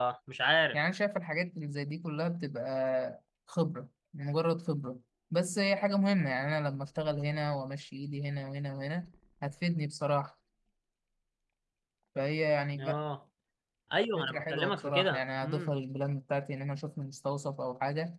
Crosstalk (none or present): present